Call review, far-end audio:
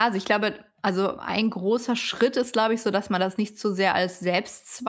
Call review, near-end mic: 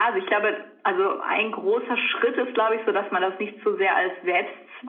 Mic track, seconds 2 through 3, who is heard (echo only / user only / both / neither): echo only